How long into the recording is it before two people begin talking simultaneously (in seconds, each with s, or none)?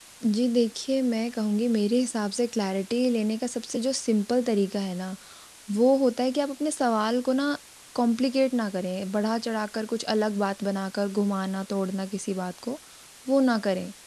none